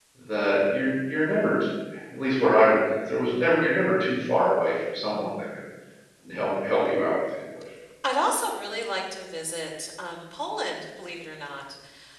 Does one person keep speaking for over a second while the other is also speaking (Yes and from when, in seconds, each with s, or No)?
No